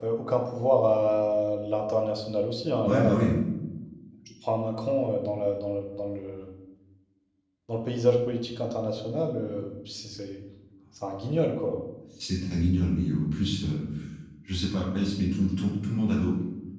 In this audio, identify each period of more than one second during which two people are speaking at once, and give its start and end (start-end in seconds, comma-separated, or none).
none